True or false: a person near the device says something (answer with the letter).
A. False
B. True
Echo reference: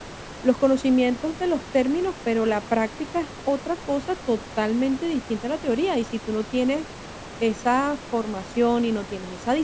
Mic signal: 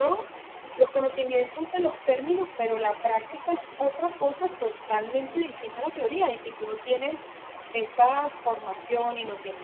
A